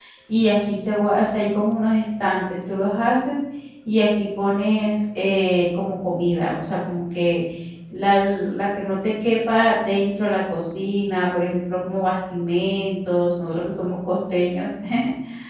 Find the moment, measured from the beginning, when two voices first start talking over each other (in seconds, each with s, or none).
none